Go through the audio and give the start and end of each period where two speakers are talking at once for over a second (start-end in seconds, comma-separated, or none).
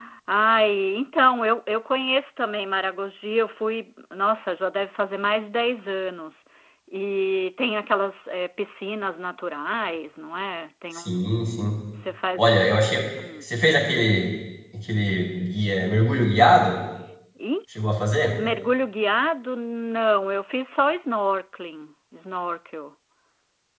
none